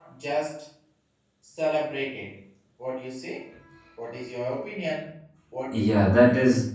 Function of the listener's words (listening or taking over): taking over